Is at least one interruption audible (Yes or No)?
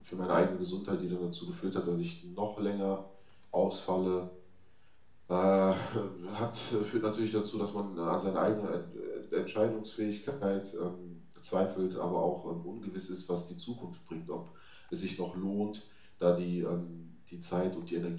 No